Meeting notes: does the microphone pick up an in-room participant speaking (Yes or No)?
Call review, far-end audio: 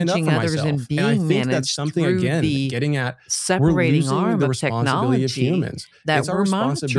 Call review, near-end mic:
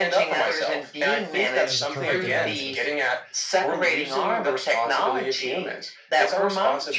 Yes